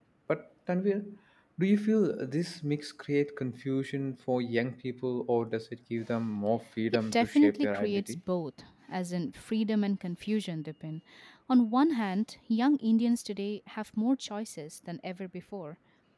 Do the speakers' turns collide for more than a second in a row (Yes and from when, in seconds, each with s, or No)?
Yes, from 6.9 s